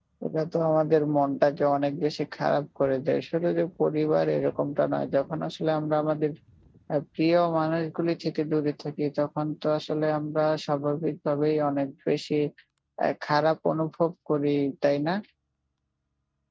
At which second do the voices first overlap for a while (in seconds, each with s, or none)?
none